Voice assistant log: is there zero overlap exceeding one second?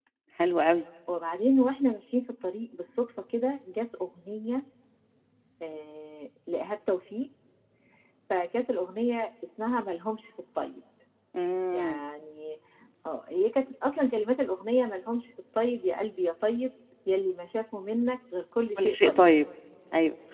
Yes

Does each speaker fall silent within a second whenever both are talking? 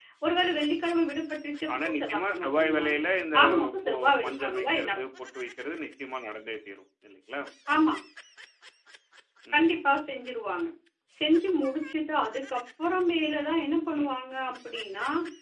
No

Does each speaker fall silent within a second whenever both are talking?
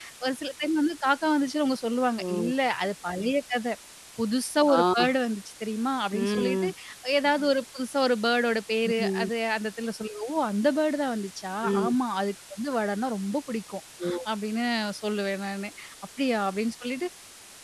Yes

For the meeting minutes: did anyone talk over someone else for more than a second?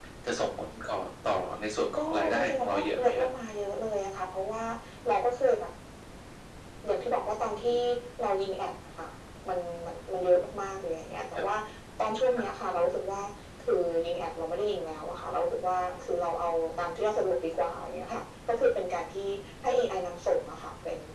Yes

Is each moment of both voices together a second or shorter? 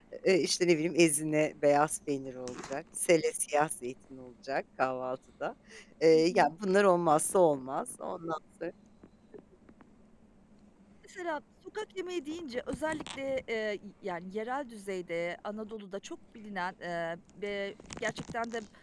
Yes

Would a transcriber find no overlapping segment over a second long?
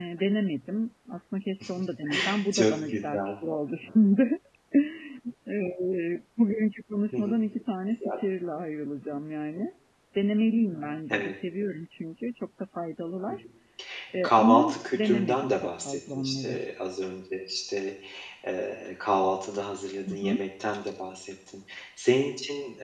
No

